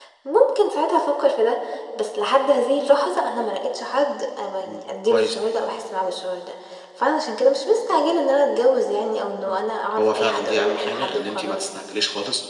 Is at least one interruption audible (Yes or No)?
Yes